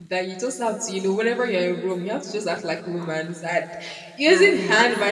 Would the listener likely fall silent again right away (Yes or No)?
Yes